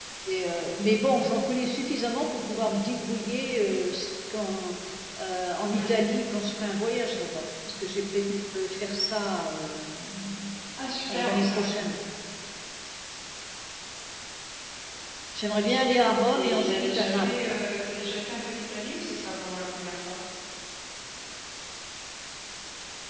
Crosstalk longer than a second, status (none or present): present